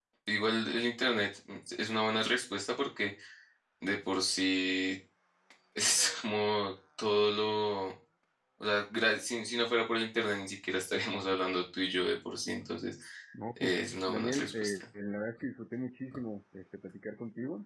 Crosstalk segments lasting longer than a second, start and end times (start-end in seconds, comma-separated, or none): 13.6-14.8